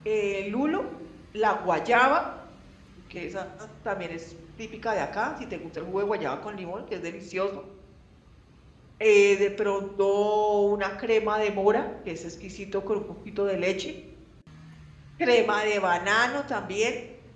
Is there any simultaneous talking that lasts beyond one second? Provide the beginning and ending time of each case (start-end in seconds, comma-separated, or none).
none